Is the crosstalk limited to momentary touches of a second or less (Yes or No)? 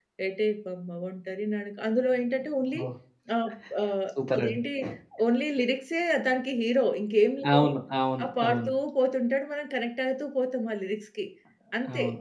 Yes